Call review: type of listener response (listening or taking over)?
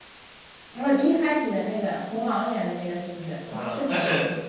taking over